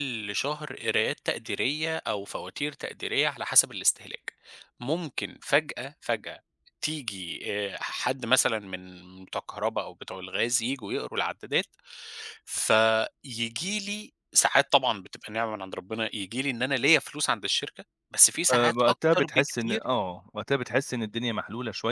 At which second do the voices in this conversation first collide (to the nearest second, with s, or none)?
18 s